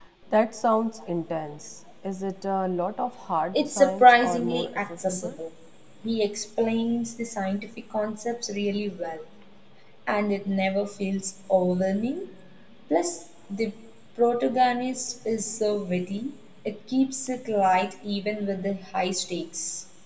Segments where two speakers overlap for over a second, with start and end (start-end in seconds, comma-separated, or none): 3.5-5.4